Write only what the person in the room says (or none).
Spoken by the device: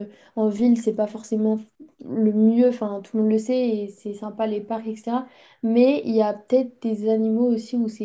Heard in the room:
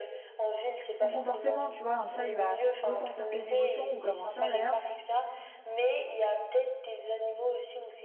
son comportement, tu vois, un chat, il va ressentir tes émotions, ou comme un chien d'ailleurs,